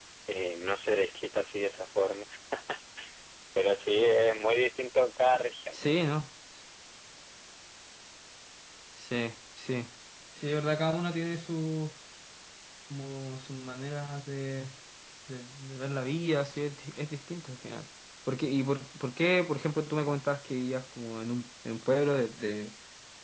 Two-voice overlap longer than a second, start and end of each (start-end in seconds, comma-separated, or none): none